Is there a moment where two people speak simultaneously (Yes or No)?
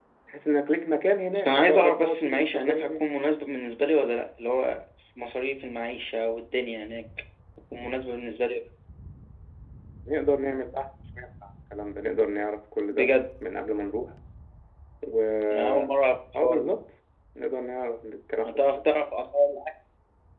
Yes